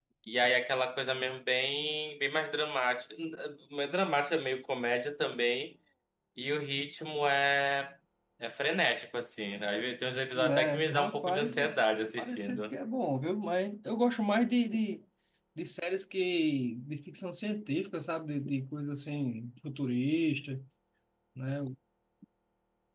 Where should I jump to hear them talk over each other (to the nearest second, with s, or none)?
10 s